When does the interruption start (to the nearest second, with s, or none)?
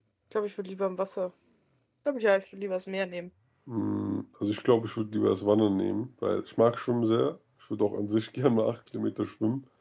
none